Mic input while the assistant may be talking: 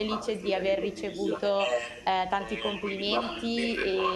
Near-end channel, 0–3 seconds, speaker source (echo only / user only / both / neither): both